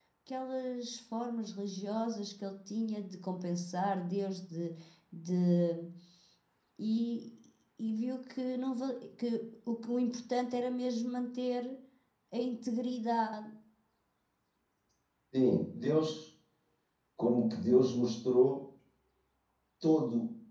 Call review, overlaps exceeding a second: none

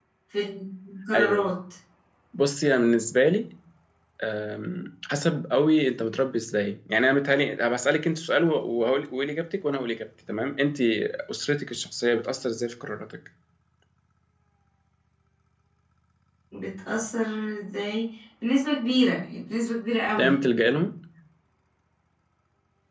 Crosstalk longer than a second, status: none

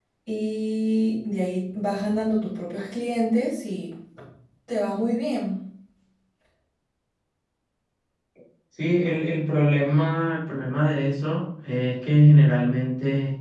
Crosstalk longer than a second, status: none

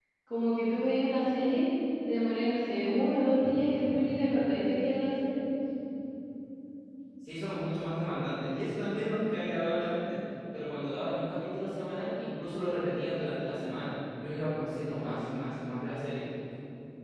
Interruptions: none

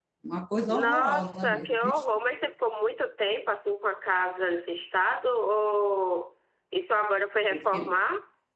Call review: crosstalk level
present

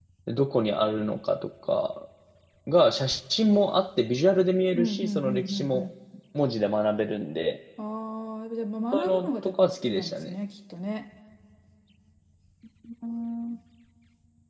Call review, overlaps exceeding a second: present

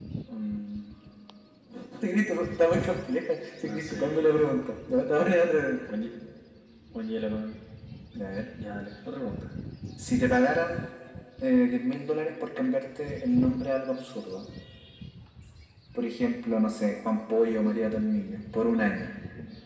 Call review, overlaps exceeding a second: none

